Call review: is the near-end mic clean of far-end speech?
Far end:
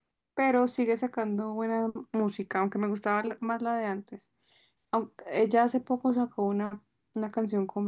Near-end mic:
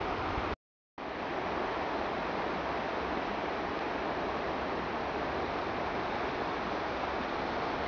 Yes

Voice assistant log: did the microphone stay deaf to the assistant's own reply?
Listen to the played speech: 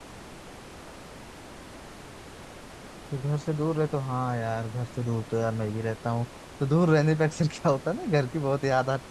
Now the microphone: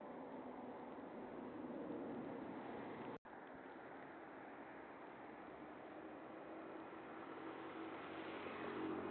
Yes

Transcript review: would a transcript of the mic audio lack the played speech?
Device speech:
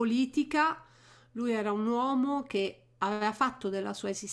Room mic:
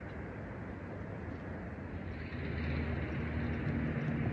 Yes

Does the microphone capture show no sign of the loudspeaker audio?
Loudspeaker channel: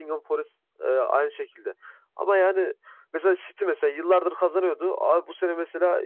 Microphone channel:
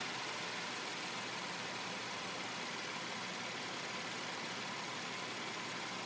Yes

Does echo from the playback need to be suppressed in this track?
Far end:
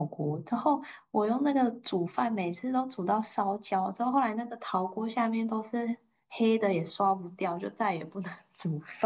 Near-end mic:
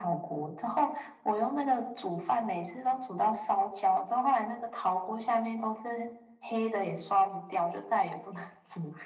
Yes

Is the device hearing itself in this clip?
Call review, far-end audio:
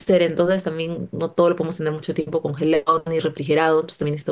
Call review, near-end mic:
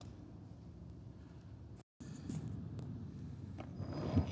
No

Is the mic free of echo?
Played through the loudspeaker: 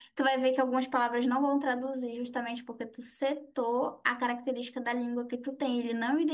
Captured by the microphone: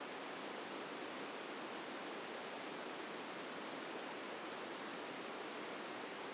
Yes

